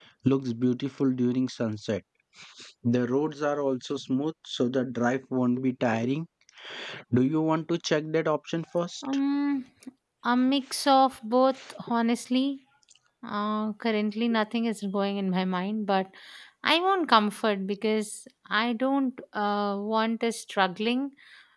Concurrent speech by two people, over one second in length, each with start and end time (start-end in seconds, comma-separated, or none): none